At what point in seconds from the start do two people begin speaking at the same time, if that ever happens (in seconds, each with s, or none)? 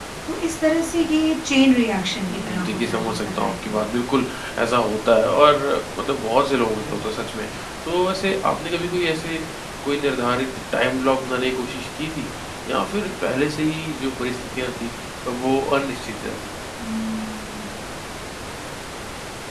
2.3 s